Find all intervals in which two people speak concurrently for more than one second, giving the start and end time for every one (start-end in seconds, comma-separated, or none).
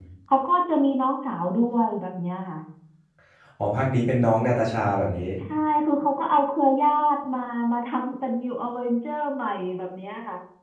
none